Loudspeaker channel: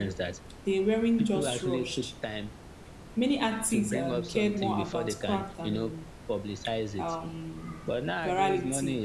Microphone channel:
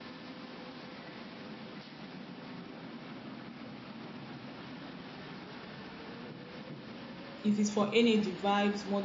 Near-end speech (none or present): present